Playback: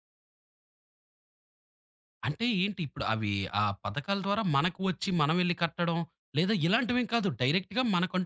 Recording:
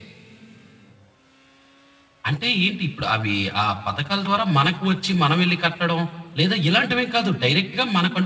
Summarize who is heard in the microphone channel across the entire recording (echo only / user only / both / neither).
echo only